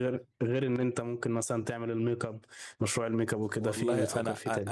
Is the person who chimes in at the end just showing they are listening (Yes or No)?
No